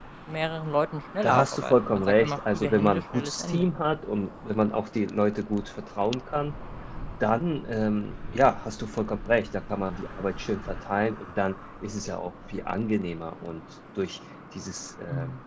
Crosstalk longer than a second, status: present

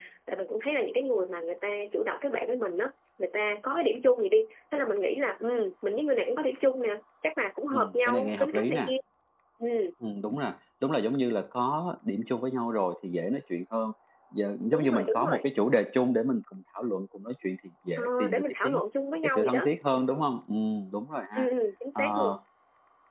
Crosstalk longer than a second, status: present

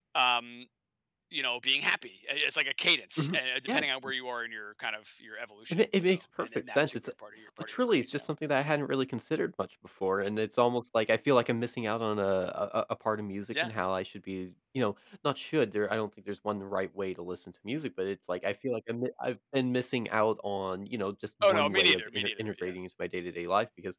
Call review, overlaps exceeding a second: present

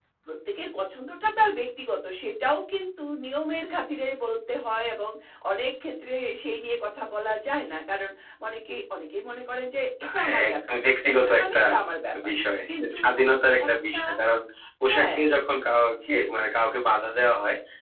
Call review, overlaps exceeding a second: present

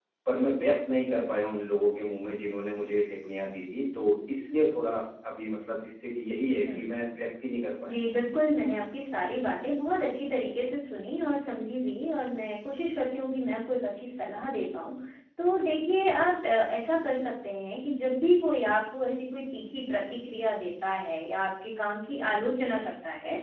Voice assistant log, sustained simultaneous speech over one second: none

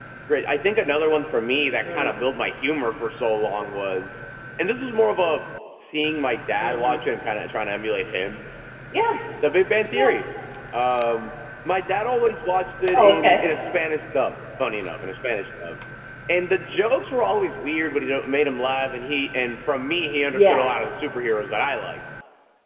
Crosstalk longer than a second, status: none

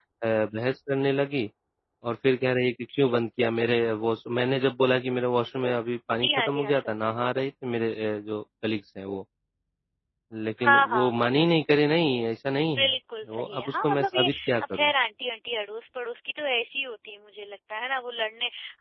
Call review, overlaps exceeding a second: present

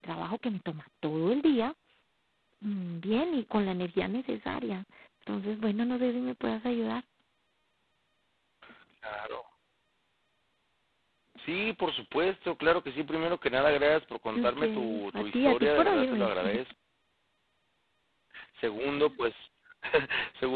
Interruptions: present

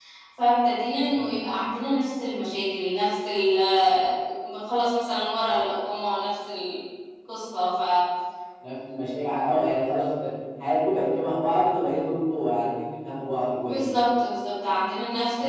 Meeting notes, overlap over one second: none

